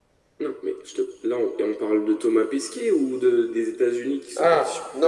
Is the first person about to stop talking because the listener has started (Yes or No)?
Yes